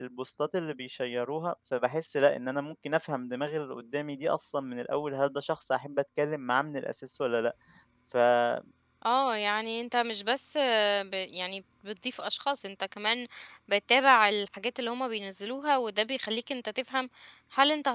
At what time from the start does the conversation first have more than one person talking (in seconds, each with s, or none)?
none